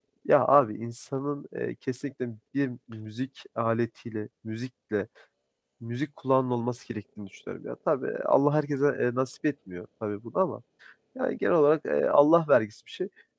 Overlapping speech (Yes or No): No